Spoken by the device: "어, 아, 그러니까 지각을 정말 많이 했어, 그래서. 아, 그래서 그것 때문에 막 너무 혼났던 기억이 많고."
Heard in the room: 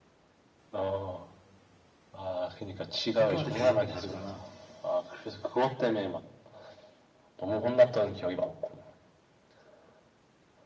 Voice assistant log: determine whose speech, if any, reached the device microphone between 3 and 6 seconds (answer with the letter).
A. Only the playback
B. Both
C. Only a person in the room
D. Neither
B